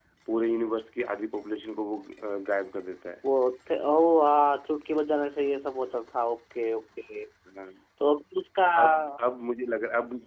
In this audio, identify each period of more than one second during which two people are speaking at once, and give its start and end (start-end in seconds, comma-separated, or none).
none